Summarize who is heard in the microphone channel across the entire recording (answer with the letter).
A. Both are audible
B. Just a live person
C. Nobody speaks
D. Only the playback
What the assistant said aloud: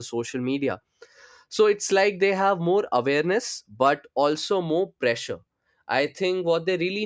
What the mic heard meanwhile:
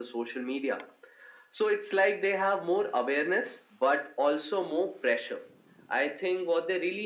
D